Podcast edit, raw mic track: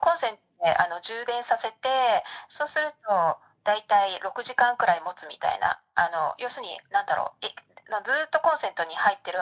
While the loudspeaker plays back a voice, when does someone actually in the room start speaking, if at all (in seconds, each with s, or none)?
none